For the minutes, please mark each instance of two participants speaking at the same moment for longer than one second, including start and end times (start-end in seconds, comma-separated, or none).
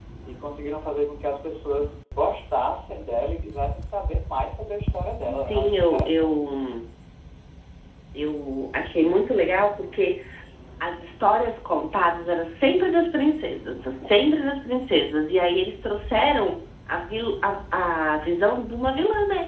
5.2-6.5